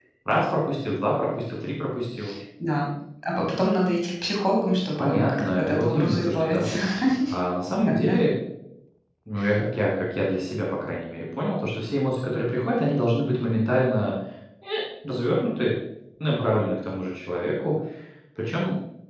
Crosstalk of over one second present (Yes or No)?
Yes